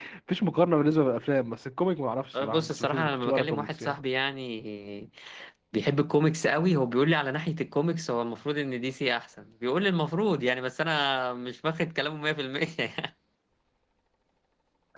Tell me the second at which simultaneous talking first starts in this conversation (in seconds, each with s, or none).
2.3 s